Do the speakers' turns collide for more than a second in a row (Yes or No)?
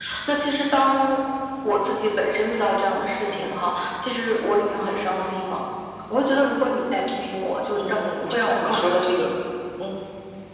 Yes